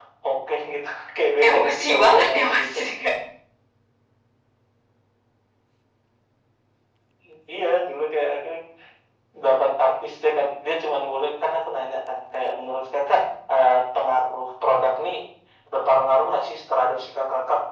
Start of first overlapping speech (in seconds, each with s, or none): 1.4 s